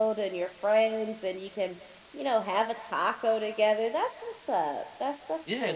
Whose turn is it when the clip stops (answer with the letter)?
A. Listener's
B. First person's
A